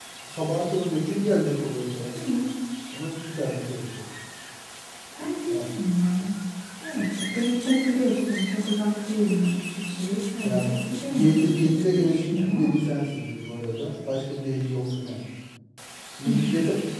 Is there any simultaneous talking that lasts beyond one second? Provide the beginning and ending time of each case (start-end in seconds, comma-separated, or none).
11.1-12.7